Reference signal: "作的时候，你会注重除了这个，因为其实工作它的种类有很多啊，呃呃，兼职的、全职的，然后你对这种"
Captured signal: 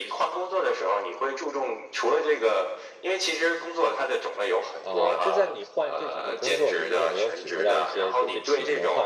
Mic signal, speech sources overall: both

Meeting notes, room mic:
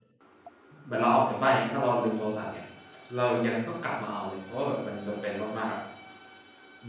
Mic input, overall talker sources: user only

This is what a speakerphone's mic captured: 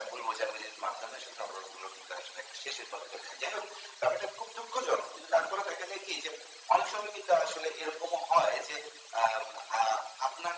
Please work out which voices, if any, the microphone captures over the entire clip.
echo only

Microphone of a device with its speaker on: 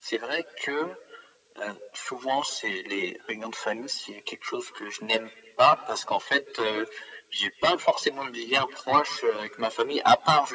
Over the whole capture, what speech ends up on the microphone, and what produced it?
echo only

